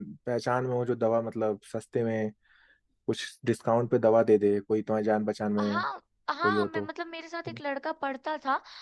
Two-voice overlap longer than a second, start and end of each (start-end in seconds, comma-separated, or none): none